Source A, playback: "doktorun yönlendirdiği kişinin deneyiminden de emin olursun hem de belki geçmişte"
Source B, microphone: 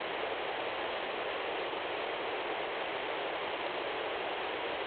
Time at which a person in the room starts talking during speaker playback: none

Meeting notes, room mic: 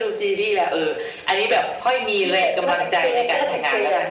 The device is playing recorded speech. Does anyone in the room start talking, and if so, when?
none

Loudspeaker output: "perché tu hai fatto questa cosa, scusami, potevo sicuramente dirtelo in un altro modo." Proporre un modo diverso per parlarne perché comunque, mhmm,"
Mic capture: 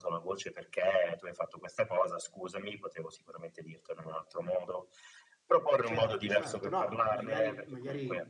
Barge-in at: 5.8 s

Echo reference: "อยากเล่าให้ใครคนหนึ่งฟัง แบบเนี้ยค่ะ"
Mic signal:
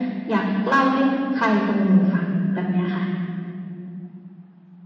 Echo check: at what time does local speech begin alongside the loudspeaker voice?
none

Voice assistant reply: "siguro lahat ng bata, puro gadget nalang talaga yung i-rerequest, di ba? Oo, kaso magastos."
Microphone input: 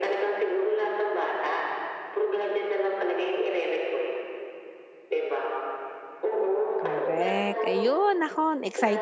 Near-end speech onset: 6.8 s

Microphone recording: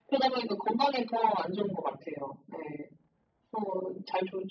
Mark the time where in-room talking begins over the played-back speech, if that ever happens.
none

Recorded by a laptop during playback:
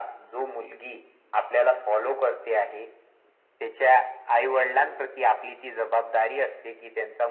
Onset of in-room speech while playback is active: none

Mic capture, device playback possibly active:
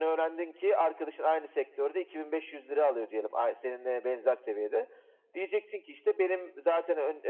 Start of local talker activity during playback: none

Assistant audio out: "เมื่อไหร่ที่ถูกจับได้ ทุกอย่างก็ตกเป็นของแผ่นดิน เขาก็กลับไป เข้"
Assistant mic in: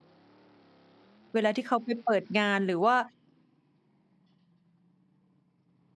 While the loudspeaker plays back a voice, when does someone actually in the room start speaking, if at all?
1.3 s

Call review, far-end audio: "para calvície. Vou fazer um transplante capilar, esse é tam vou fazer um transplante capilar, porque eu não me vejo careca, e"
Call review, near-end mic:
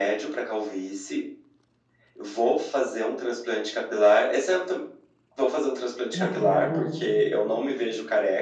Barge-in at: 6.1 s

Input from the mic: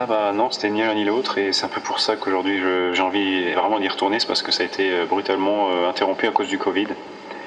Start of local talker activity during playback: none

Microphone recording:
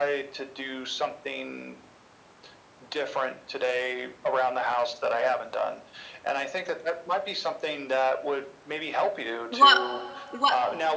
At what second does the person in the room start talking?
9.5 s

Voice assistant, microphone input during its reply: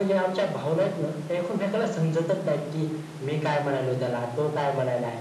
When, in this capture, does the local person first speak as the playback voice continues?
none

